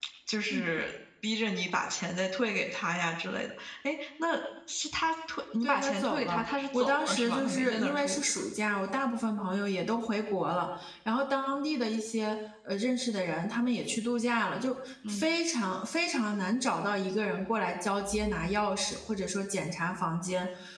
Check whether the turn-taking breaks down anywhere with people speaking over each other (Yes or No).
Yes